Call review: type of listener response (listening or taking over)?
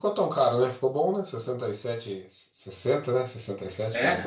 taking over